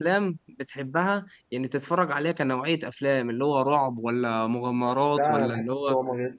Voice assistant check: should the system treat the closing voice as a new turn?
Yes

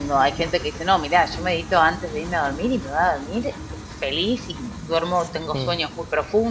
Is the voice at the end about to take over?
No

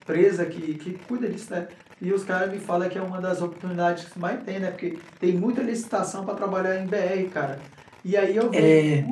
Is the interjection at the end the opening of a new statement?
No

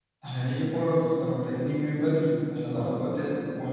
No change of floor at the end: Yes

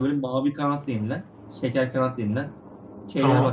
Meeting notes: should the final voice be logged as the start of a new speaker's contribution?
No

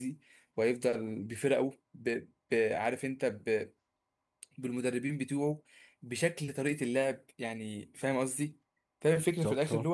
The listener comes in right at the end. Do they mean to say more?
No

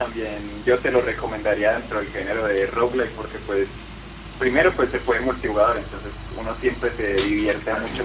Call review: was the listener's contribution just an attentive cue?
Yes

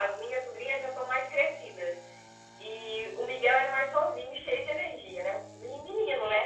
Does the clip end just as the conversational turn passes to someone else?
Yes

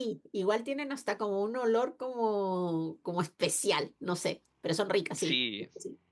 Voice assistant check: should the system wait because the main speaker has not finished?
No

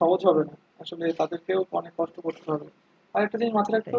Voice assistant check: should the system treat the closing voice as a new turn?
No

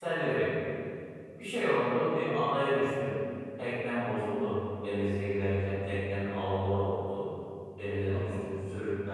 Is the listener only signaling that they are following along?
Yes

